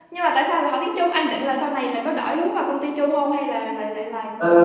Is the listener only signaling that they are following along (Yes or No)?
No